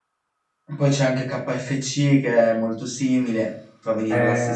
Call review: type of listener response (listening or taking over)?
taking over